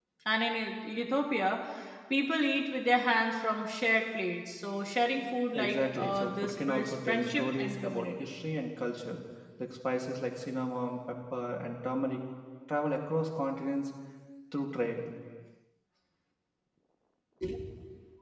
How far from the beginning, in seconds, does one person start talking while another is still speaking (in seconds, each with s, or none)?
5.5 s